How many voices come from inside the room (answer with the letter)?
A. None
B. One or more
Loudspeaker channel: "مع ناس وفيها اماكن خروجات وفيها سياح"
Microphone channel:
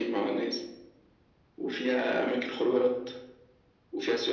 A